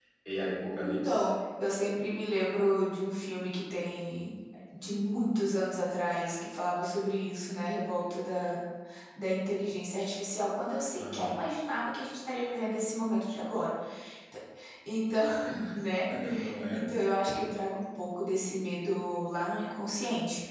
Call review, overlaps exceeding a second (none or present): none